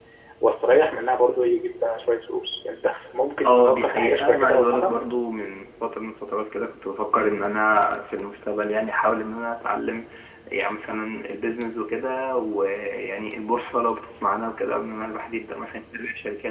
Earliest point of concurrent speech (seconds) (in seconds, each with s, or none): 3.4 s